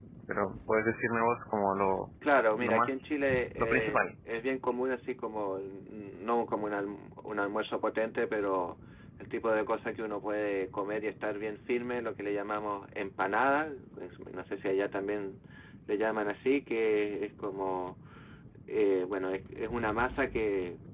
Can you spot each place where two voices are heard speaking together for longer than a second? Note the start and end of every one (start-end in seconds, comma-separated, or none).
2.6-4.0